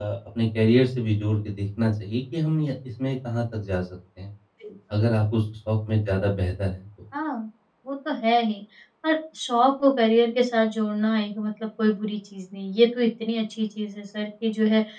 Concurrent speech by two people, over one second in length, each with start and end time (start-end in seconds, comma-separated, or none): none